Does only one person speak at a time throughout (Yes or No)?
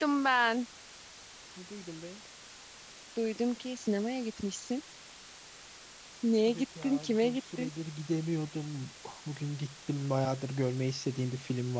No